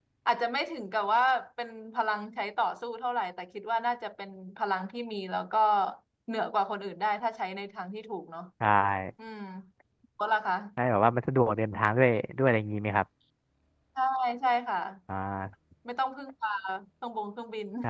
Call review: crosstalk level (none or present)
none